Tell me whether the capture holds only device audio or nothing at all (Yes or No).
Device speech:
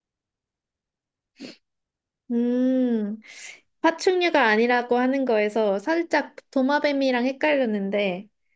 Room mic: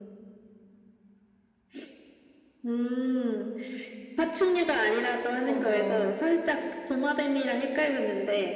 No